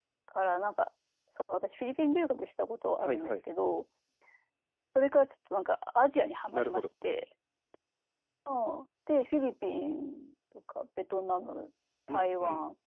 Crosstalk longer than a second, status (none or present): none